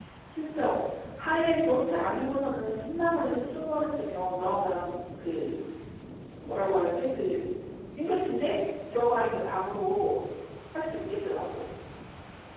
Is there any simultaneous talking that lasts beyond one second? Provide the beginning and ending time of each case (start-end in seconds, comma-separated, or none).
none